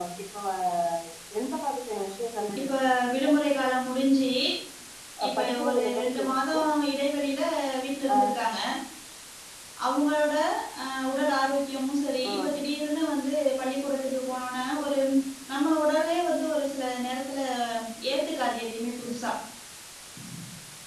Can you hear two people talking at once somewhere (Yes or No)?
Yes